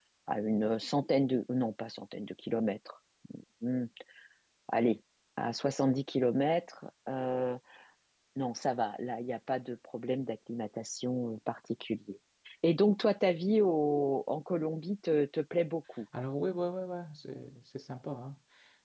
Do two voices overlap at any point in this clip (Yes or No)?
No